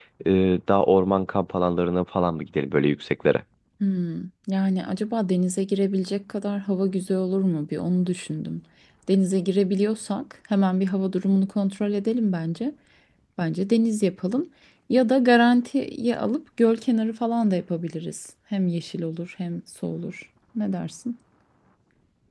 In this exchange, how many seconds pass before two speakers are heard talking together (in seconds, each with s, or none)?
none